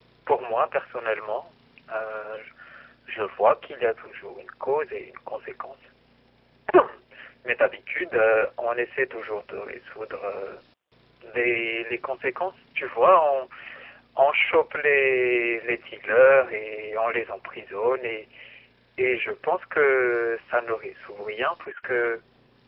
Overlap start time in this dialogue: none

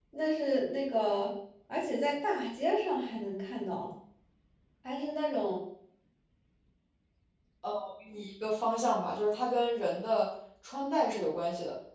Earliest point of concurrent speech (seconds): none

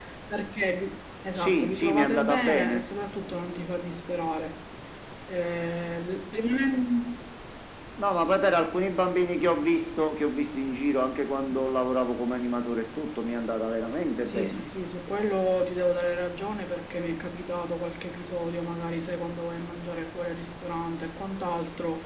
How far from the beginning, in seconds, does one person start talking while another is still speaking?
1.3 s

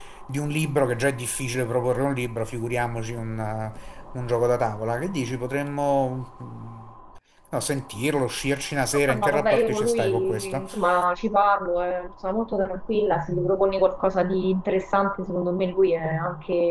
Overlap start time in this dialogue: 9.1 s

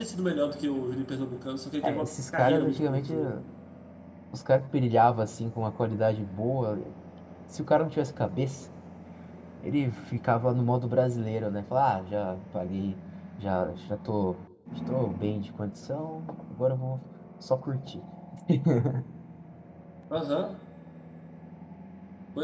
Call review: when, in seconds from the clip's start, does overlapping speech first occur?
1.8 s

